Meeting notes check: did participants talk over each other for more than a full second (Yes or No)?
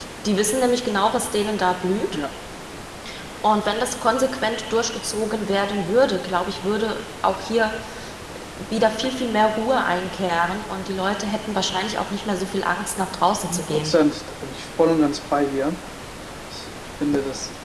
No